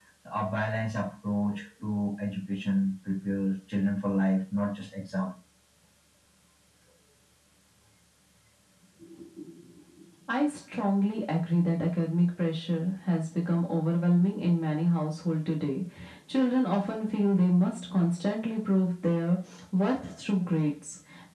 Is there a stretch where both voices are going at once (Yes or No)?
No